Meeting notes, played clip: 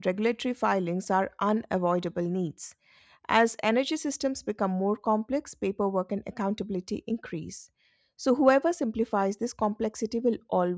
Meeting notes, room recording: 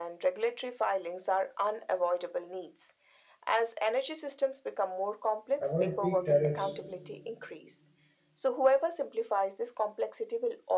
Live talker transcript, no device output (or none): avoid peak tariffs,